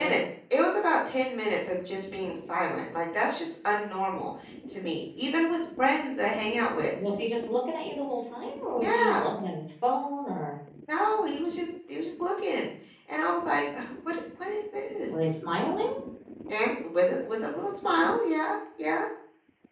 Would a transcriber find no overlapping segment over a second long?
Yes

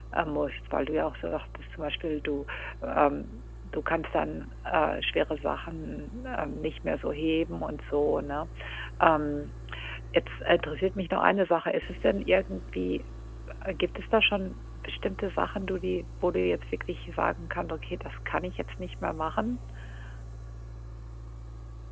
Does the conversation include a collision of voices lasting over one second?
No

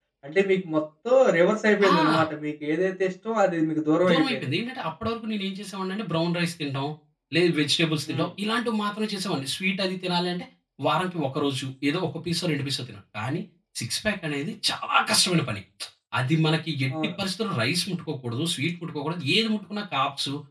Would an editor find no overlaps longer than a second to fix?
Yes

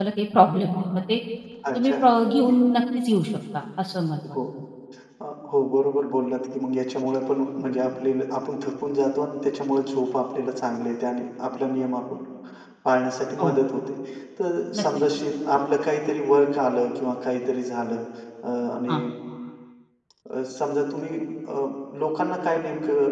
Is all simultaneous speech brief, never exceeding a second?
Yes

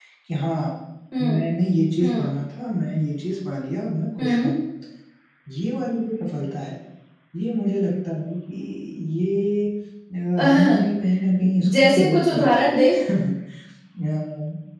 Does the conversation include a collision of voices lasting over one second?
Yes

